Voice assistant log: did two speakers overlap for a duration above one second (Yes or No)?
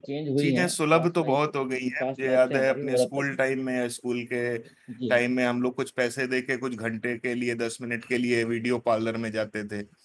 Yes